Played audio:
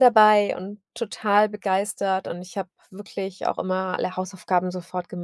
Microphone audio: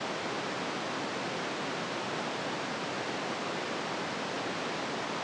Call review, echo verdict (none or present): none